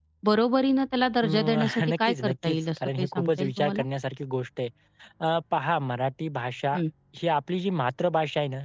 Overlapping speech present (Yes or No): Yes